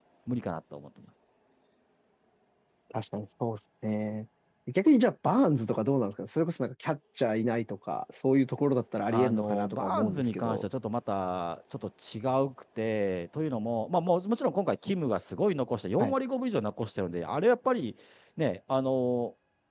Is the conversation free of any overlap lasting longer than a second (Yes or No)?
No